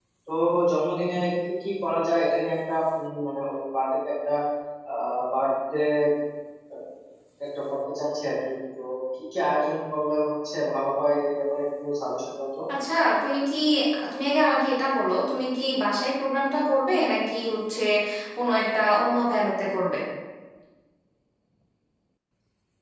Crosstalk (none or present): none